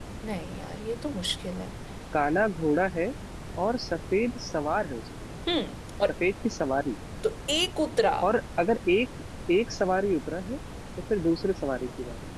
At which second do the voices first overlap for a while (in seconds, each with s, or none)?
none